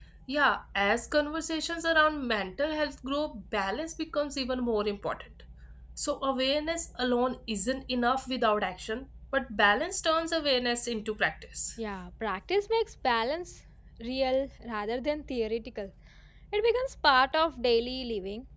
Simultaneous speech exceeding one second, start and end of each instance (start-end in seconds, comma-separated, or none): none